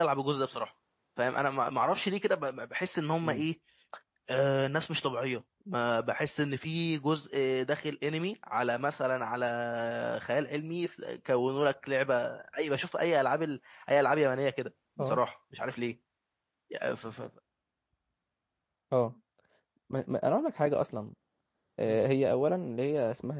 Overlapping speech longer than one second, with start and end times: none

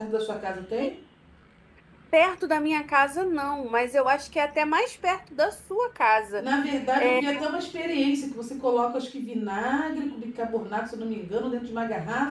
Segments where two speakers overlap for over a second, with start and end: none

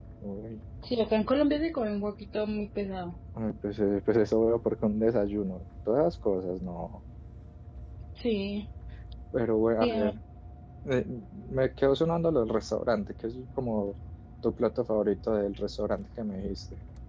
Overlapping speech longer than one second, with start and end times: none

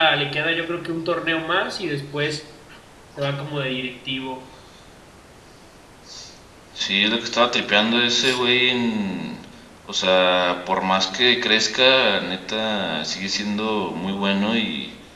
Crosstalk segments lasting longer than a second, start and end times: none

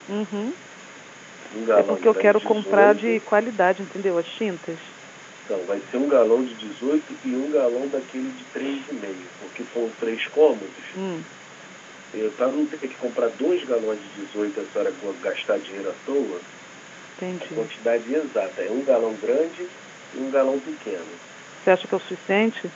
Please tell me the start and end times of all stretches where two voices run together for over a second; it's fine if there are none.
1.8-3.2

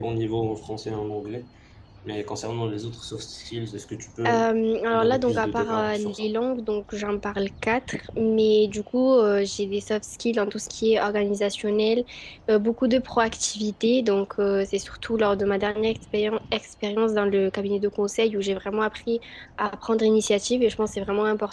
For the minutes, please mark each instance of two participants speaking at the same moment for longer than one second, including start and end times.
4.9-6.3

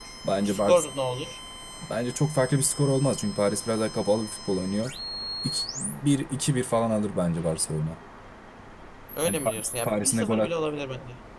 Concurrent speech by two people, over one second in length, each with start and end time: 9.2-10.5

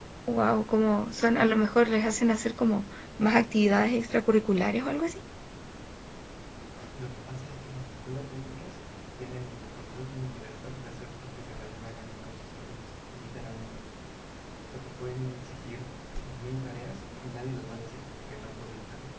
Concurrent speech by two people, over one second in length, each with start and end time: none

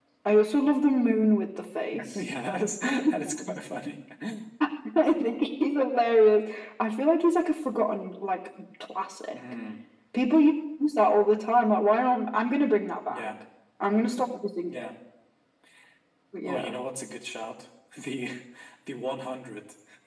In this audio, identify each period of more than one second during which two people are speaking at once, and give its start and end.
none

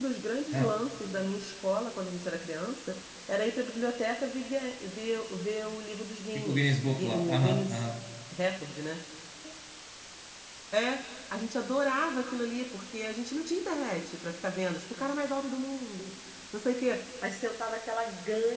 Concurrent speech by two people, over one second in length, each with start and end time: 6.4-7.8

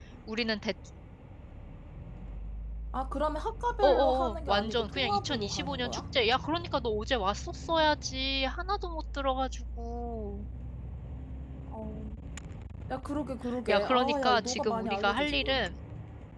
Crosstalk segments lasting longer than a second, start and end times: 3.8-6.0, 13.7-15.7

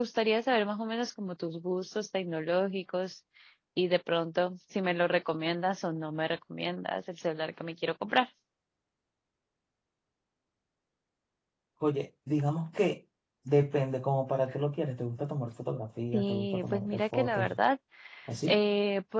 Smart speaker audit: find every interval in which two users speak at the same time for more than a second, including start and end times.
16.1-17.6

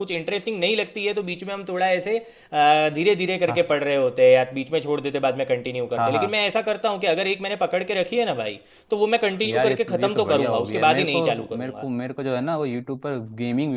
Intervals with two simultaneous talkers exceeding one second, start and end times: 9.5-11.8

